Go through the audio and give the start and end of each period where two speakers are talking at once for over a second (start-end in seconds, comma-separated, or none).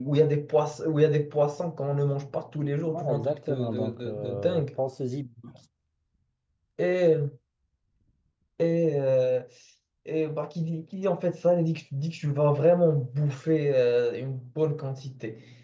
2.9-4.7